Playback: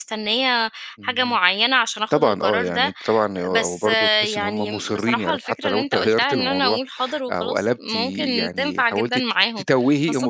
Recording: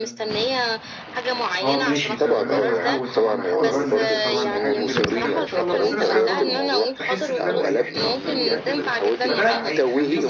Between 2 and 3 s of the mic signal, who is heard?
both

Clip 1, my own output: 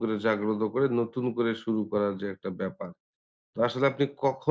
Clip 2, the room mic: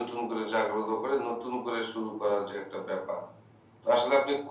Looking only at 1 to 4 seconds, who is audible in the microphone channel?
echo only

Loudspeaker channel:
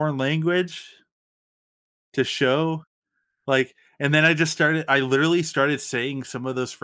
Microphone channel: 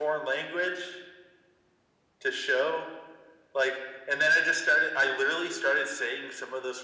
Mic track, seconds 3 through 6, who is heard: echo only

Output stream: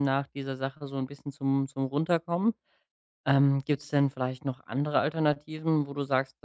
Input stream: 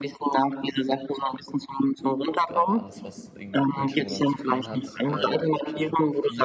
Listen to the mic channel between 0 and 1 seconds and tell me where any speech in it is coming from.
echo only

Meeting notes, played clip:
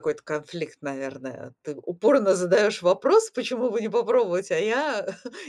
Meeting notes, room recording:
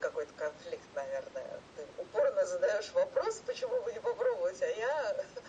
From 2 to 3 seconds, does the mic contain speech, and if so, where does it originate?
echo only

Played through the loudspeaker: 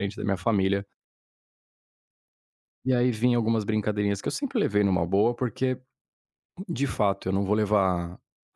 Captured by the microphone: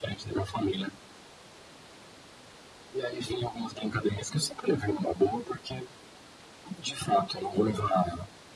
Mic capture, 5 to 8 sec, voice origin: echo only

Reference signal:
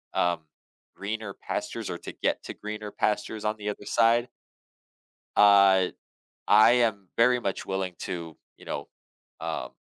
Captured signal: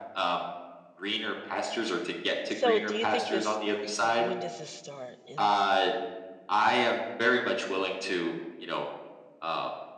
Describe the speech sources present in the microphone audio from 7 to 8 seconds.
echo only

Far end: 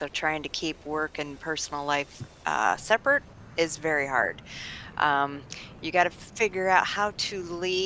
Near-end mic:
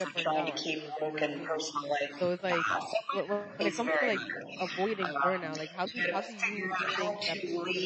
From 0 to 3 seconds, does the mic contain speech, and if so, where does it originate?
both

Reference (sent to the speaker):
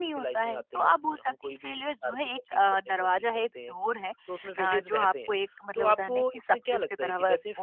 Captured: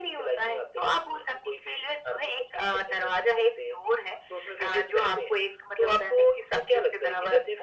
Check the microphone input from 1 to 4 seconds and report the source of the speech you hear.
echo only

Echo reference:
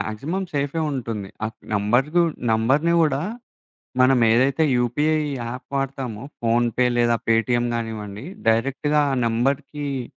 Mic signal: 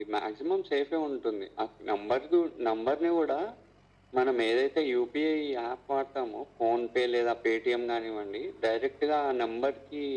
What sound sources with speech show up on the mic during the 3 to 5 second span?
echo only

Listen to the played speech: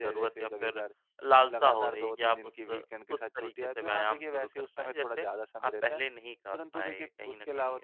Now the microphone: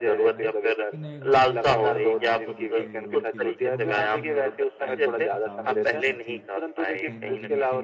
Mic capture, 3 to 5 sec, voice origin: both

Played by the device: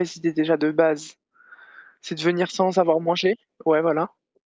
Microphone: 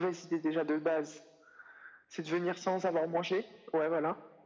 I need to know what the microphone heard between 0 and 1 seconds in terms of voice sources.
echo only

